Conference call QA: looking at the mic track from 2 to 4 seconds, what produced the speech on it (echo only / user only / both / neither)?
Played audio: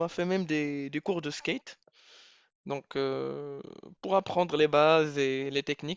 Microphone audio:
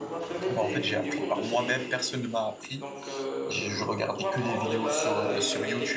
both